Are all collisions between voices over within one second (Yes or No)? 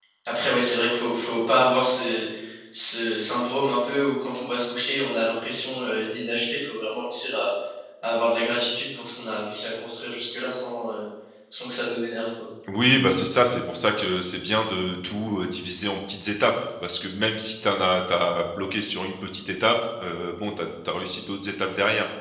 Yes